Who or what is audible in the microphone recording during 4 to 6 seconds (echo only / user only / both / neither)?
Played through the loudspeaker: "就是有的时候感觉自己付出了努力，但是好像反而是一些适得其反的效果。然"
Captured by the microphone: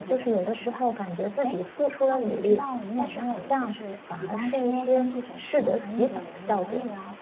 both